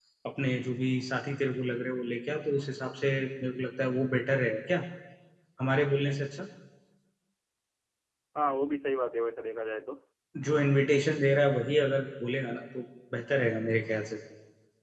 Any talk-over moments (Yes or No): No